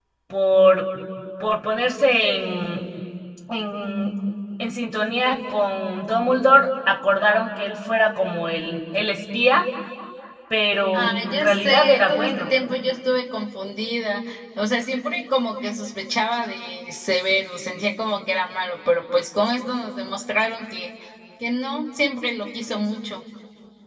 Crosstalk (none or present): present